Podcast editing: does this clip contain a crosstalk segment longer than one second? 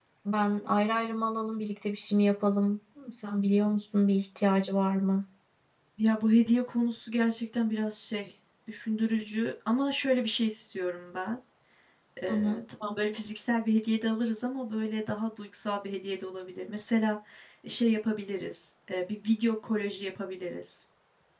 No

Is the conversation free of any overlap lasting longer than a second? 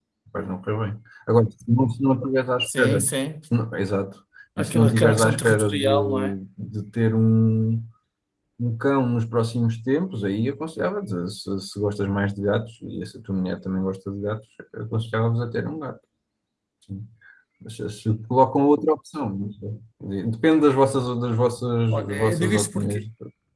No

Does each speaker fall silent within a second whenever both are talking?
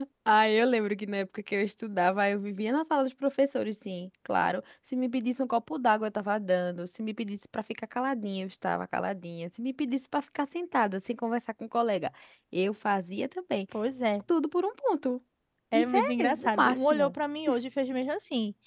No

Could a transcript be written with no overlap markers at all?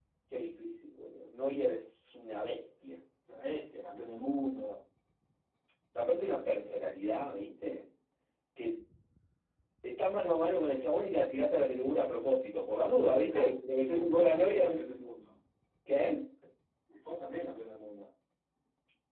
No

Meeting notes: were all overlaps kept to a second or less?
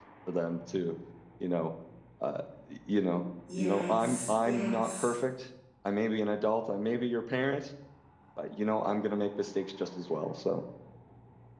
No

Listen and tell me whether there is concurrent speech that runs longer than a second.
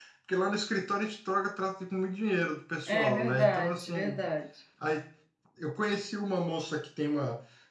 Yes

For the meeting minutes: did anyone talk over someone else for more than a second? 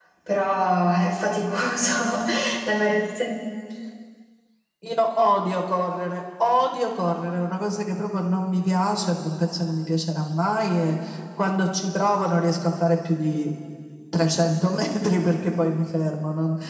No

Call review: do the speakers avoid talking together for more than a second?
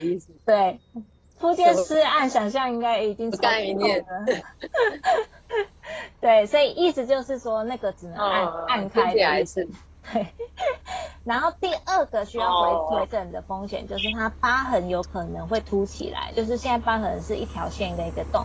No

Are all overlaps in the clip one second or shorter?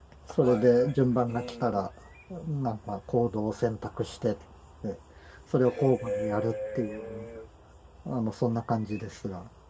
No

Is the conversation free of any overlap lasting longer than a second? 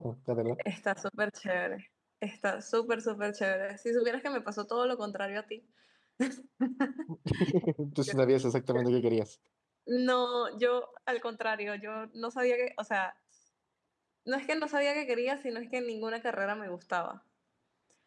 Yes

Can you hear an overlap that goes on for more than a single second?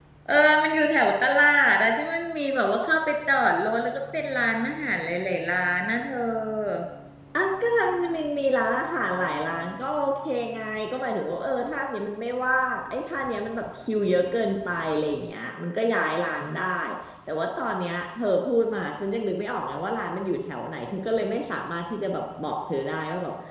No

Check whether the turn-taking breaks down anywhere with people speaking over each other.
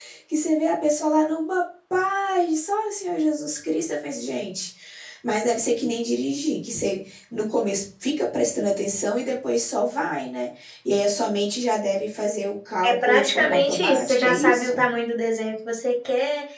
Yes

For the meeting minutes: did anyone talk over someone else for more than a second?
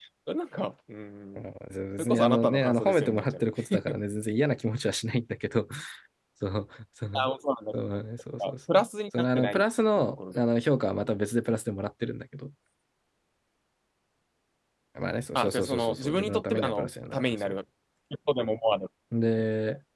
Yes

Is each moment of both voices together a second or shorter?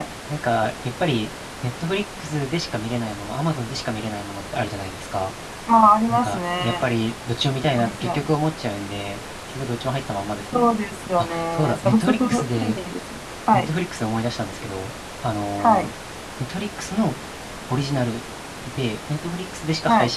No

